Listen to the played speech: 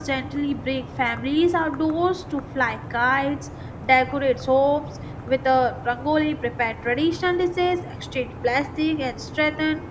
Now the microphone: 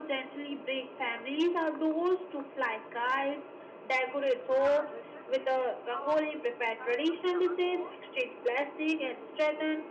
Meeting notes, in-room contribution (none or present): present